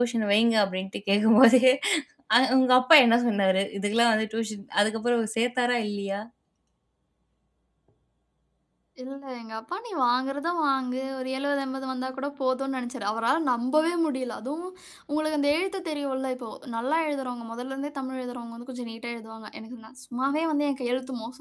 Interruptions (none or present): none